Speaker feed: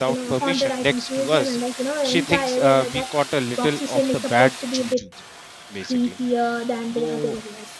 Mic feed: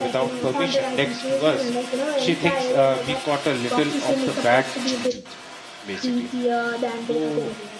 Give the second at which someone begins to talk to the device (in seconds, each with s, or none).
none